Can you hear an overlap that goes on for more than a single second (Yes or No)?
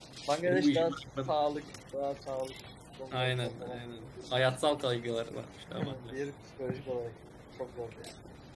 Yes